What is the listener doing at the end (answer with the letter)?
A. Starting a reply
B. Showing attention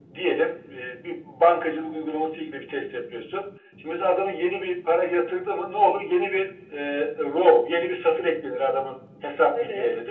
B